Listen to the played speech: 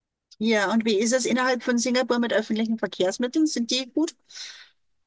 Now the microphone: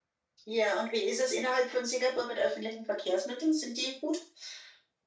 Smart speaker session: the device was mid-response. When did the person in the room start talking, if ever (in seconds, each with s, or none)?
none